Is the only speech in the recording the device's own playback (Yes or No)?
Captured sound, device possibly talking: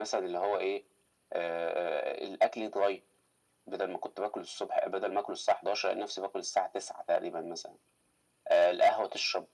Yes